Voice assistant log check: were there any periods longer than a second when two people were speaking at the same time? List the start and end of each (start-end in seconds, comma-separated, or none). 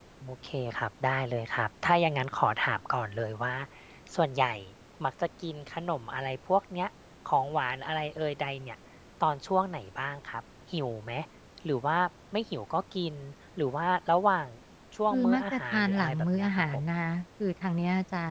15.1-16.8